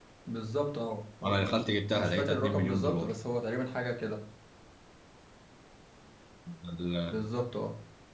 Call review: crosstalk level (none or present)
present